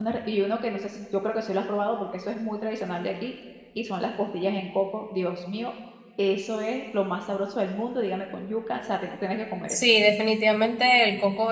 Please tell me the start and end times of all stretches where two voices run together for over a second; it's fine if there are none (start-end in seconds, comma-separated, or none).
none